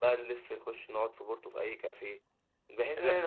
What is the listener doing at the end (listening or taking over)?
listening